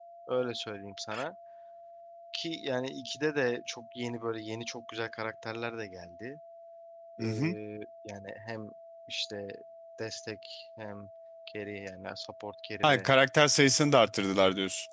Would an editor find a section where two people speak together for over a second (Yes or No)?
No